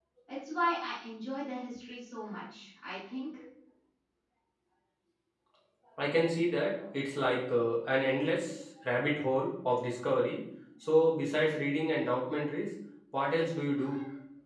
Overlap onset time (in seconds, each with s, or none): none